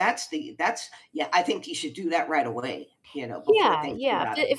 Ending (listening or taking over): taking over